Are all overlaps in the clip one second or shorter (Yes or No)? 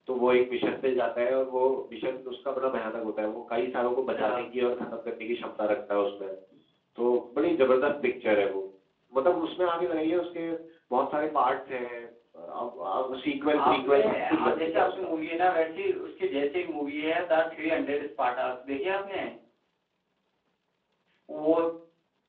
No